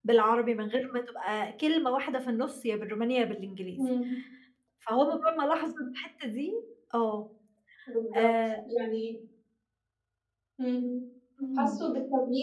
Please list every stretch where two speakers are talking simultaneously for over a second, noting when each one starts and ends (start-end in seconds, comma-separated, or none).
none